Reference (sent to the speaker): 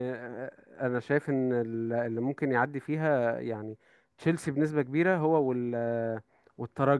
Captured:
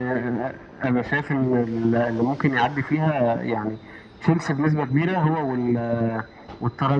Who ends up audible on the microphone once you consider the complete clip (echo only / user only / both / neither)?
echo only